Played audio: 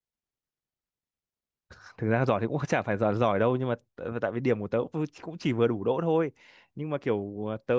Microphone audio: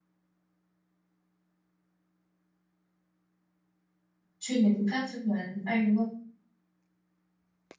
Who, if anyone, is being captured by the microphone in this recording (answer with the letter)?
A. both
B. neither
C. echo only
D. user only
D